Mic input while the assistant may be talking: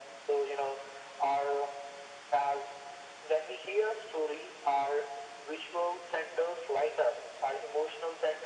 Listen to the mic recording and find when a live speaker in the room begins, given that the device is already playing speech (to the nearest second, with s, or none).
none